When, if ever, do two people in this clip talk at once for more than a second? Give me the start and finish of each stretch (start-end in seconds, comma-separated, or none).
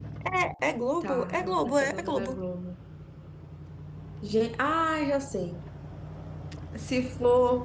1.0-2.4